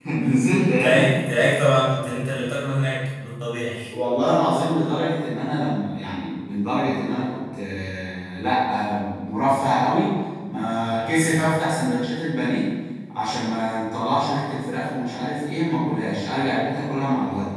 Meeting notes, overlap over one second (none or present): none